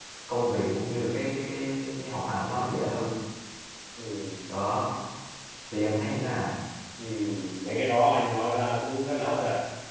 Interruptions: none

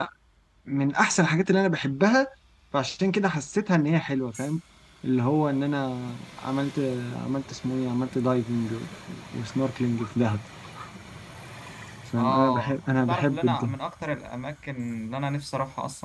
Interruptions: present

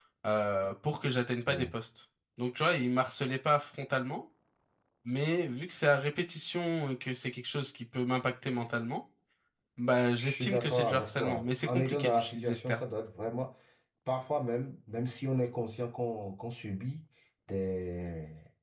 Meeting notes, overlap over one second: present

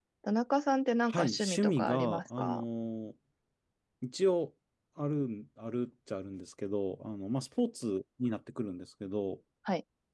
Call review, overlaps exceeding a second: present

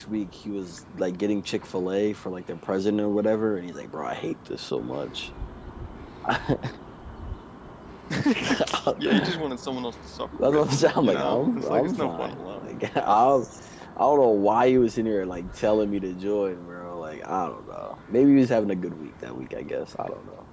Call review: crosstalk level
present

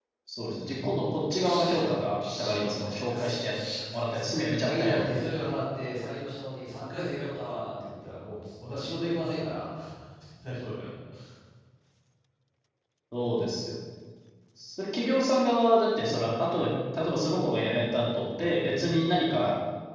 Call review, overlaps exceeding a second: present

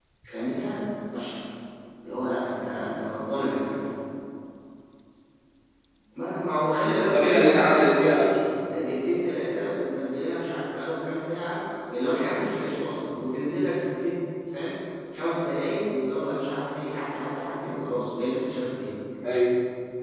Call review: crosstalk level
present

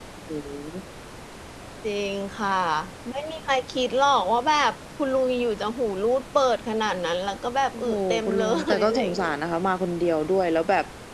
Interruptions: present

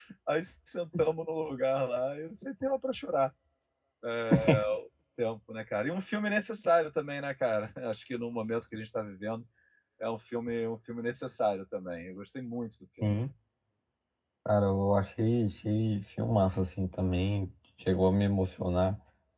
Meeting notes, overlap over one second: none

